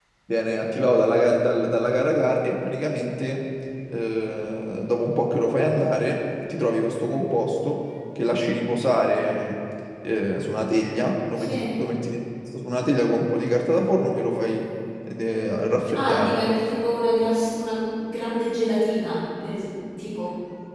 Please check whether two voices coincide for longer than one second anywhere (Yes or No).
No